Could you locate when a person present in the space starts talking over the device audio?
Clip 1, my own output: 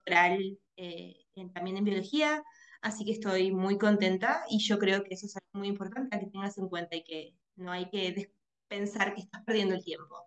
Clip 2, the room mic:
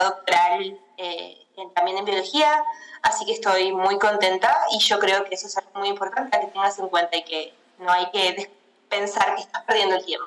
none

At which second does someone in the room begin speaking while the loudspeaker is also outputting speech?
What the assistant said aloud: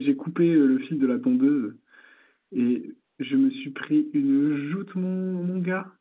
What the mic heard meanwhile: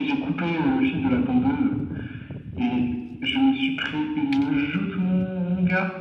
none

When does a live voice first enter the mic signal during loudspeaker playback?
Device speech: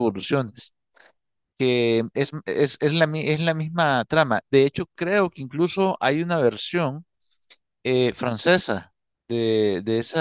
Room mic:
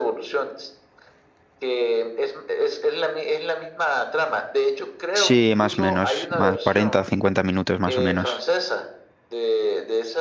5.1 s

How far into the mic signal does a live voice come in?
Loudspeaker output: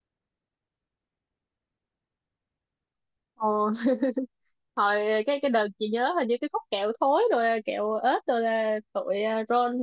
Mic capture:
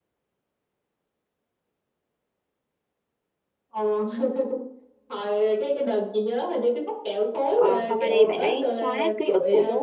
7.5 s

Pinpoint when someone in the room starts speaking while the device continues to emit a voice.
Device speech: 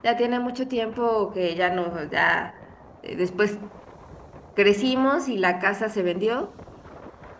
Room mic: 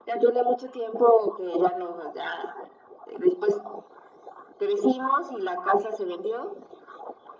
none

